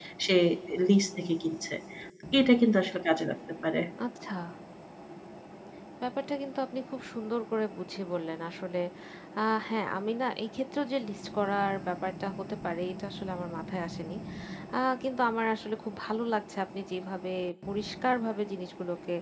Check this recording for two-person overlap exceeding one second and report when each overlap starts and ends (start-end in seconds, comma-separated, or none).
none